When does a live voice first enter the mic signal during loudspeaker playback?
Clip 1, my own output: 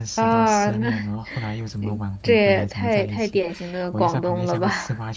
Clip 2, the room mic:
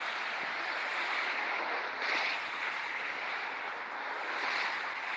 none

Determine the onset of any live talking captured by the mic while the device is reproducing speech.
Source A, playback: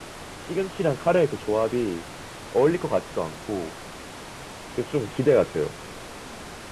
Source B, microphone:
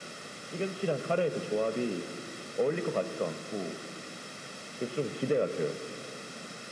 none

